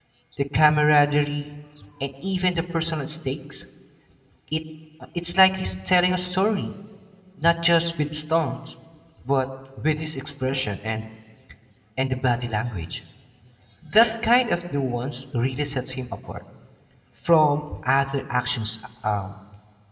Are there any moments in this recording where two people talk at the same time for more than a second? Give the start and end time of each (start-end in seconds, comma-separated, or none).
none